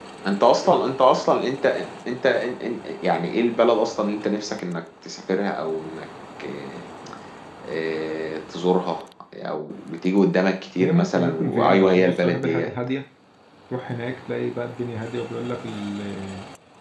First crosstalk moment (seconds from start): 10.8 s

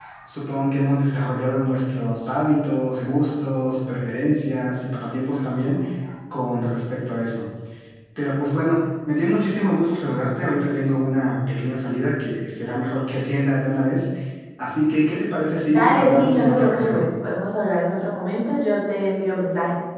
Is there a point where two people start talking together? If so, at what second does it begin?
15.7 s

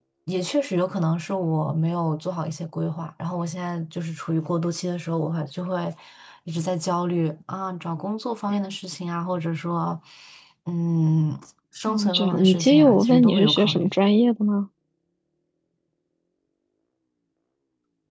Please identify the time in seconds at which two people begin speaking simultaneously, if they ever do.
11.9 s

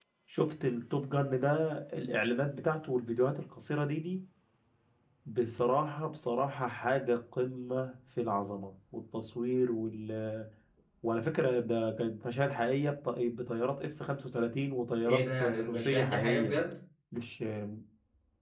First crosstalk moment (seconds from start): 15.0 s

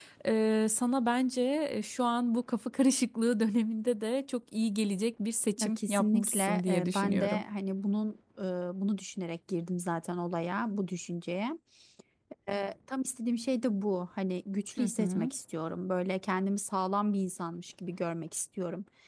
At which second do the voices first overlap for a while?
5.6 s

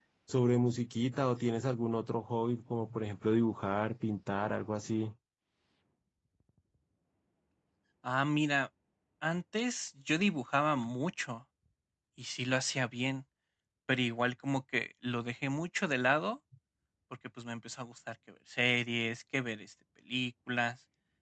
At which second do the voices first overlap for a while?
none

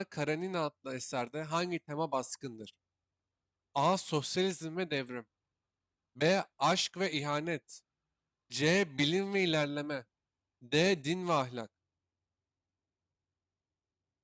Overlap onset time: none

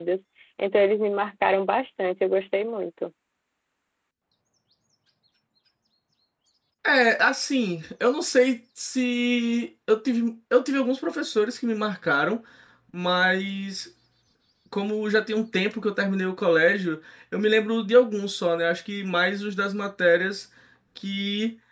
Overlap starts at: none

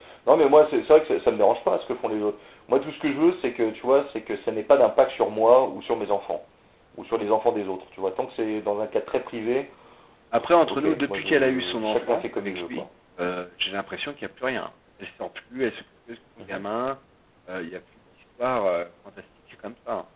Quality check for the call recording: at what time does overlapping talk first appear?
10.6 s

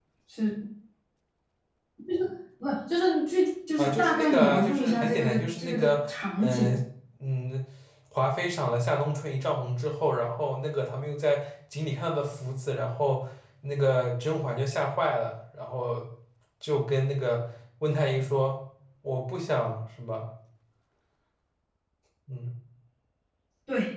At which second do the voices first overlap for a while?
3.8 s

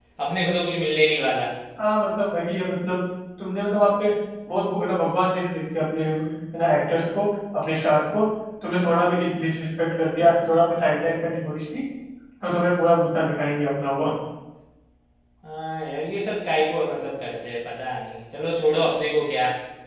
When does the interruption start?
none

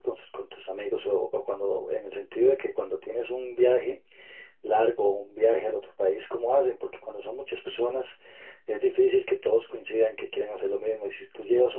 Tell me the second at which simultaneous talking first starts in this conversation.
none

